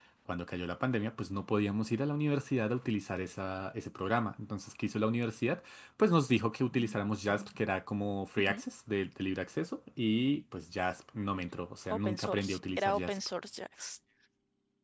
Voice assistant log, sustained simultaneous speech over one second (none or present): present